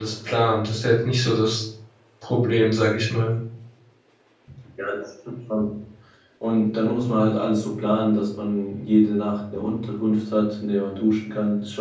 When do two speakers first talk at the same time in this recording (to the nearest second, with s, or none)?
none